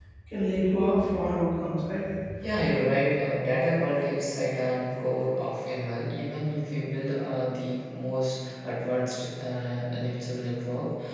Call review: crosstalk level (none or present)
none